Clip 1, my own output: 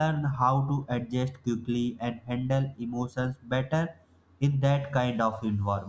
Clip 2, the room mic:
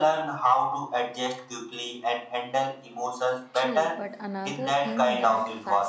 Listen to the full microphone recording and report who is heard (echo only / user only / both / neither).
both